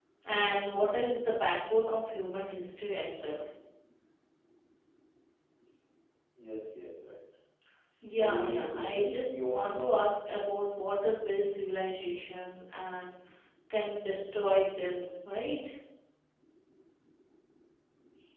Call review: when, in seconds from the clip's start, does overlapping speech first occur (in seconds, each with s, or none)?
8.2 s